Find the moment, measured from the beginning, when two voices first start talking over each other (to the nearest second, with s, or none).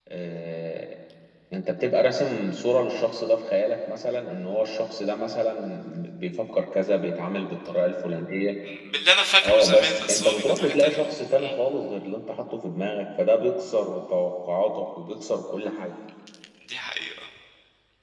9 s